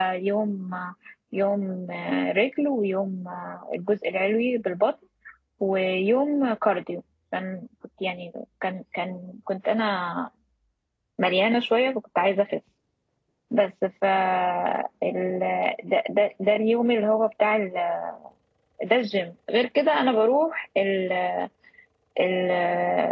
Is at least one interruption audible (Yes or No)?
No